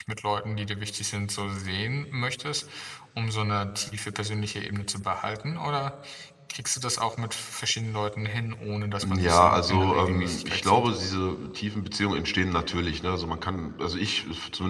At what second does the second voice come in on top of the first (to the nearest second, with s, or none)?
9 s